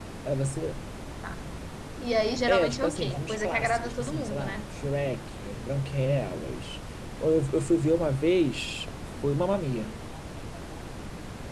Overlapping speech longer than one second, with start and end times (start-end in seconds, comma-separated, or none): 2.5-4.7